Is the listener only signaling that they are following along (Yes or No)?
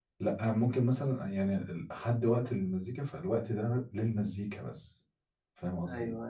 No